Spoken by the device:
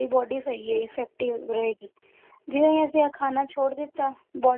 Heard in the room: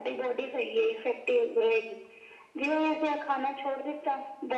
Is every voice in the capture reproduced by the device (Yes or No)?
Yes